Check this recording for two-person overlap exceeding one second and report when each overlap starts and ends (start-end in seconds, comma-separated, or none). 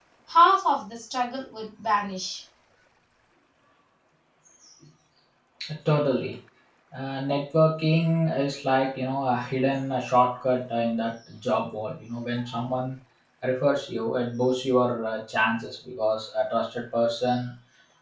none